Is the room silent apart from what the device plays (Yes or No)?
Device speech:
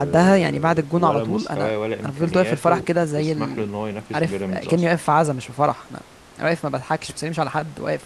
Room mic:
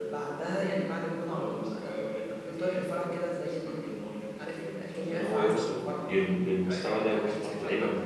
No